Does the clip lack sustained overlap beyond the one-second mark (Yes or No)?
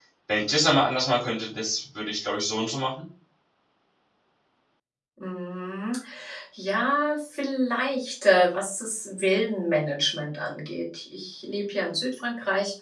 Yes